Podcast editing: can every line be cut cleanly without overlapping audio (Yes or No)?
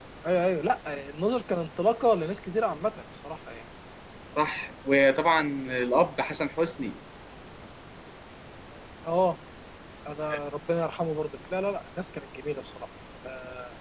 Yes